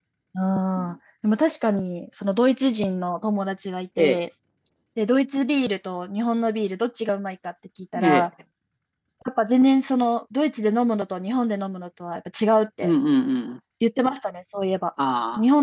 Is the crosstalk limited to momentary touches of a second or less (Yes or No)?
Yes